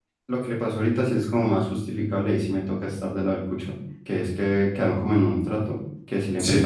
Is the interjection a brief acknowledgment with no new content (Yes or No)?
Yes